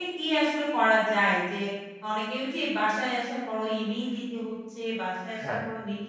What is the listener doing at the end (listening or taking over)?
listening